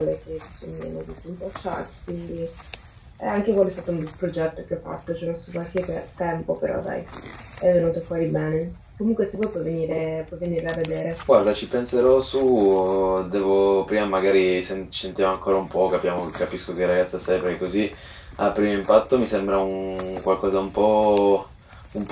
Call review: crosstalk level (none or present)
none